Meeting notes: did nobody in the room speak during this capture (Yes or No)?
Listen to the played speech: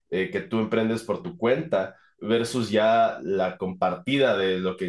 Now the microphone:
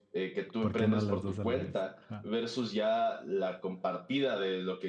No